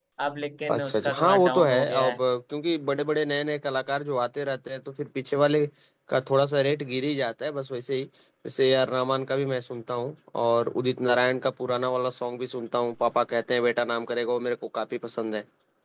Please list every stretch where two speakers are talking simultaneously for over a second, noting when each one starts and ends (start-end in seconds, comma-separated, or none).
0.7-2.2